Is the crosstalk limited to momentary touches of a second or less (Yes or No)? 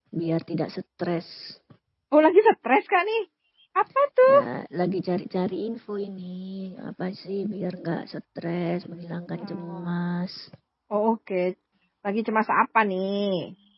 Yes